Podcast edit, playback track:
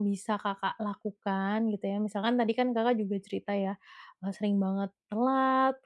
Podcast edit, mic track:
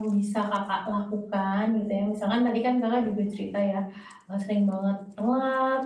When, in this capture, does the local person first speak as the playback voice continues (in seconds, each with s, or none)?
none